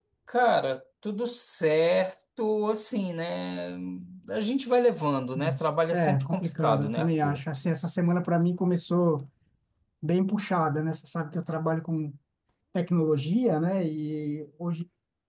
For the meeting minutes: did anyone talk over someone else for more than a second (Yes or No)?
Yes